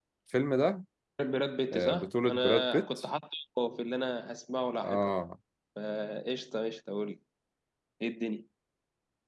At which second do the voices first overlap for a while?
1.7 s

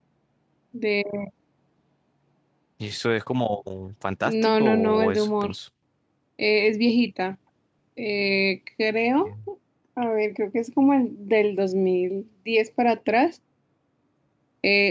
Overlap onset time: 4.2 s

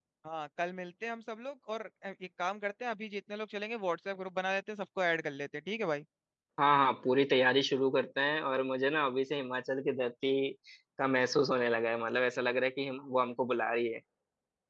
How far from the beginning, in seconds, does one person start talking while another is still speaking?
none

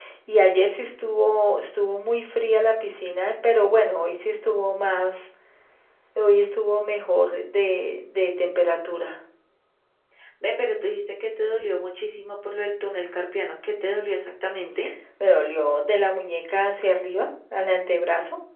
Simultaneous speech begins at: none

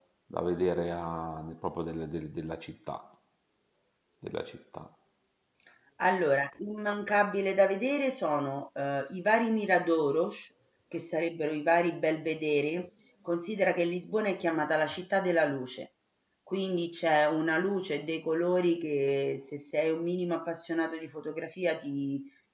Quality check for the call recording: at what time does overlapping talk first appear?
none

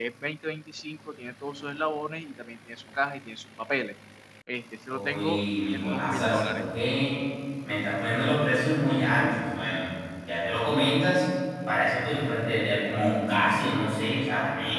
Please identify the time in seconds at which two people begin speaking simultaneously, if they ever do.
4.9 s

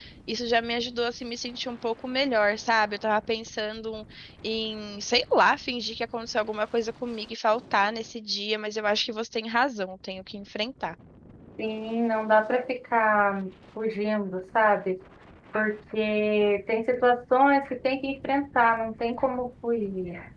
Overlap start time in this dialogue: none

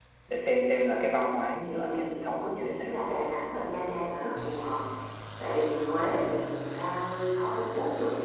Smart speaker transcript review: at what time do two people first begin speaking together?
1.6 s

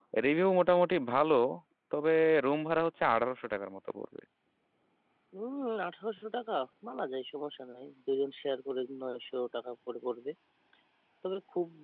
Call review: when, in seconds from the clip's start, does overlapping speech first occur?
none

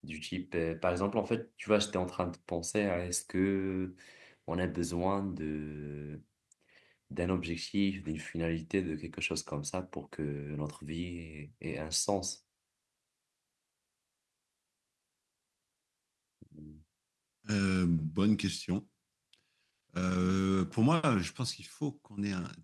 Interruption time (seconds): none

